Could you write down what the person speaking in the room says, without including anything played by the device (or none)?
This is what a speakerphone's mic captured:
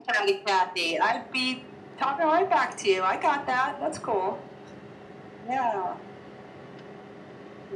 none